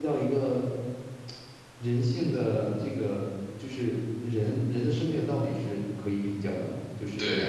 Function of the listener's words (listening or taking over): taking over